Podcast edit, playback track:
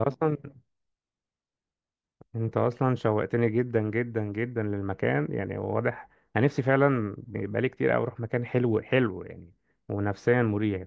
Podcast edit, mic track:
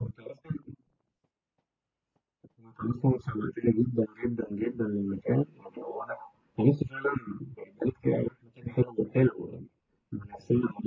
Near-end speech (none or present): none